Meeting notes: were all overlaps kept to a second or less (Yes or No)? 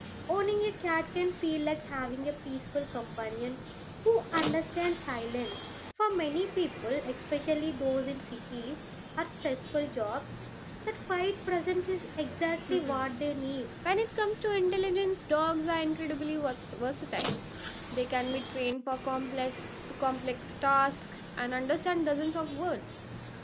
Yes